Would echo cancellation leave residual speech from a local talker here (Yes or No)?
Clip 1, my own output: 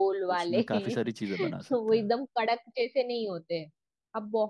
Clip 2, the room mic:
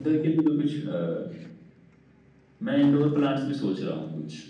Yes